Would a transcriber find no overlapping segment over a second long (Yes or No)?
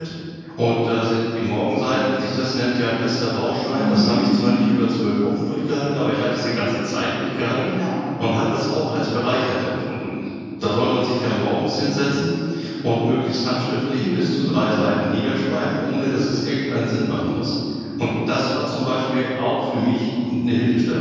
Yes